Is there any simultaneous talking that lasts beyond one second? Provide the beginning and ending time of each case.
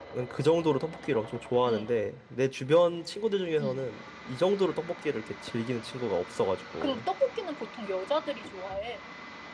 none

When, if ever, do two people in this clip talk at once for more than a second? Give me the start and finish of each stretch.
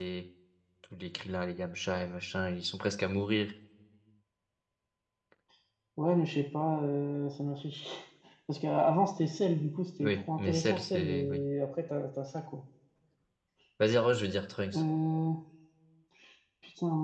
10.0-11.4

